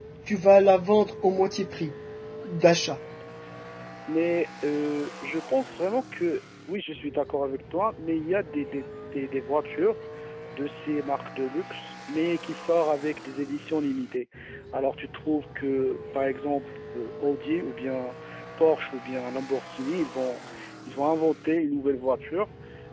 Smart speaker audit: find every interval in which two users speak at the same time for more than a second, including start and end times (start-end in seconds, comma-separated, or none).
none